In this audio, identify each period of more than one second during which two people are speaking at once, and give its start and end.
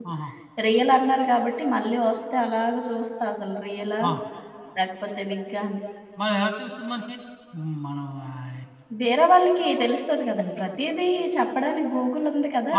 none

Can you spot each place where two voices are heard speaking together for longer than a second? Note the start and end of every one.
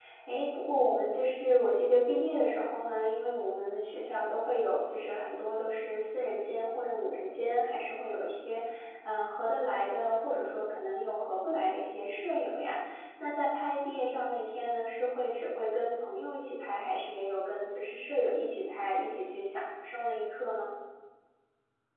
none

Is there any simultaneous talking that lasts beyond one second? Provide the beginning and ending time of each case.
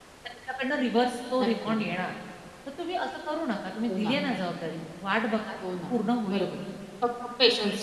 none

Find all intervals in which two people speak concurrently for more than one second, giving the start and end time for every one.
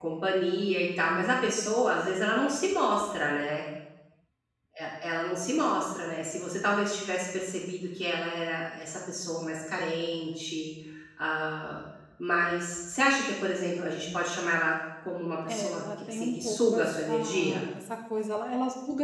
15.5-17.6

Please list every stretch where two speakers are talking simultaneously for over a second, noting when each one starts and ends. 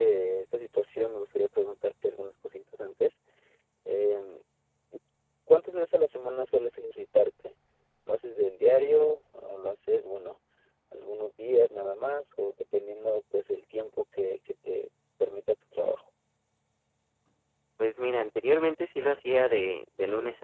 none

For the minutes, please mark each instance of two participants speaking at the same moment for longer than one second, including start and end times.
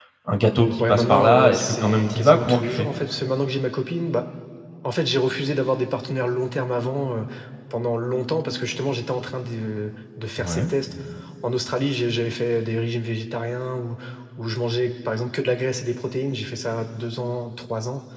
0.8-2.9

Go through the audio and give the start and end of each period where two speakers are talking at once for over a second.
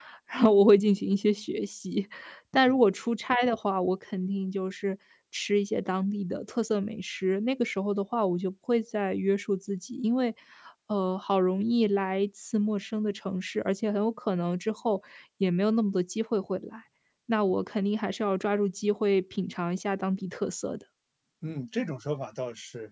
none

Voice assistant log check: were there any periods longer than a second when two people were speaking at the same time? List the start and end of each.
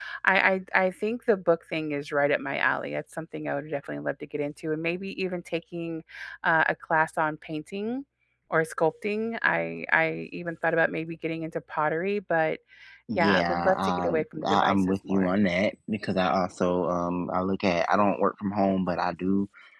13.2-15.3

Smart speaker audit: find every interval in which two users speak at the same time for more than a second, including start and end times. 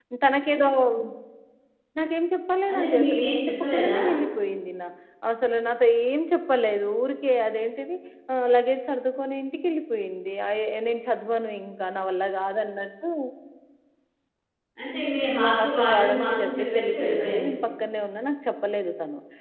2.7-4.0, 15.4-17.5

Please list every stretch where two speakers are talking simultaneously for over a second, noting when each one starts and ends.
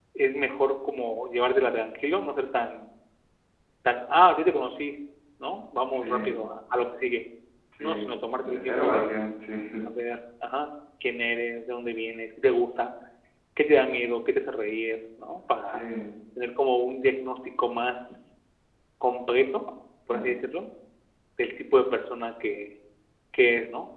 7.8-9.1

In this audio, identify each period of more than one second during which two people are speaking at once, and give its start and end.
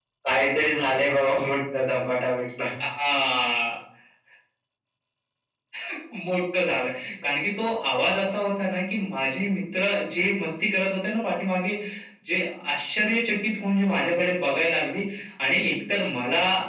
none

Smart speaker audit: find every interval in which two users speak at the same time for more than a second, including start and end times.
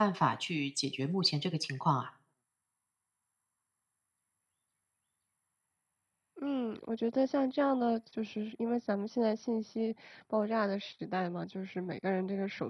none

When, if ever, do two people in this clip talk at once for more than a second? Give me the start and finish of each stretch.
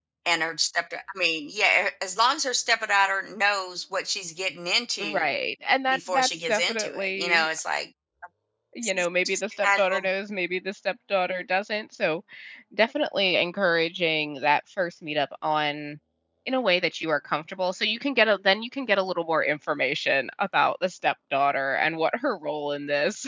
5.9-7.5, 8.8-10.0

